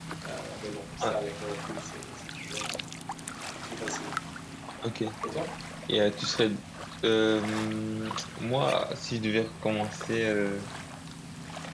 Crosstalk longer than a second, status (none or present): none